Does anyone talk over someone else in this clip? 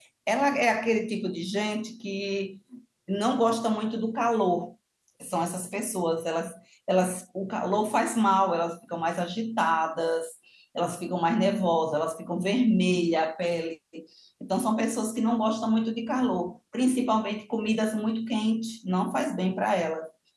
No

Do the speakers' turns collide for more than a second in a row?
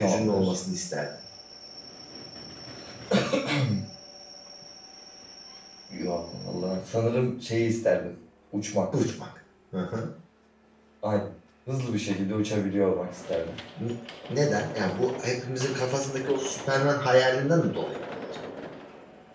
No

